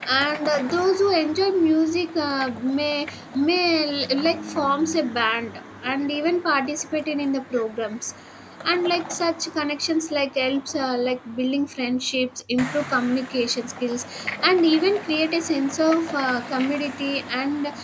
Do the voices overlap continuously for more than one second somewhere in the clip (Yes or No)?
No